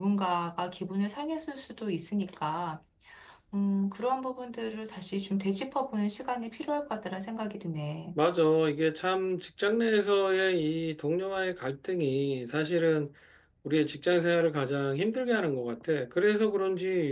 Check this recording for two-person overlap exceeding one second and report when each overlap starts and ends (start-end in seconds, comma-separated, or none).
none